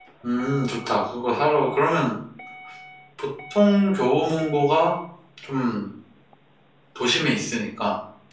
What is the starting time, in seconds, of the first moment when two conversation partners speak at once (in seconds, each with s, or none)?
none